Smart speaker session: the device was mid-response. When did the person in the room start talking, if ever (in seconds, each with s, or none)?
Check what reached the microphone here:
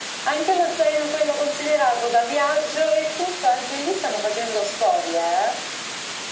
none